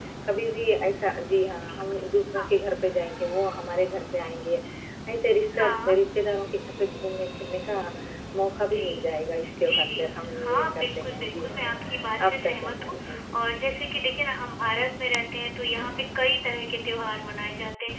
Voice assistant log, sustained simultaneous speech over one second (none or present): present